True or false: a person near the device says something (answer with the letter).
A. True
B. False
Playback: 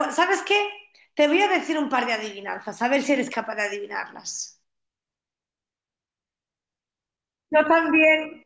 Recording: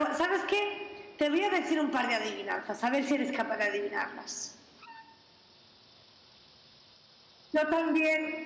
B